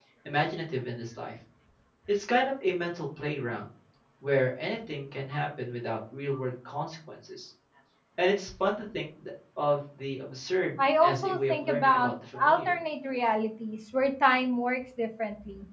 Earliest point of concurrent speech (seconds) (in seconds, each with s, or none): 10.8 s